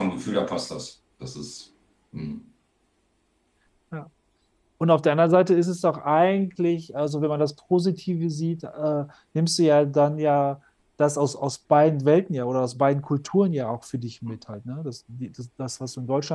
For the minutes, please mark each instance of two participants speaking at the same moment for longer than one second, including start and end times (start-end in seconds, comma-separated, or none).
none